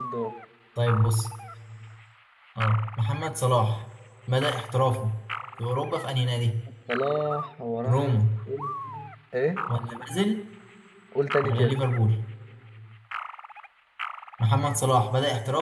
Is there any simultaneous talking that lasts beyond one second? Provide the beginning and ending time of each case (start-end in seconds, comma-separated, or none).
none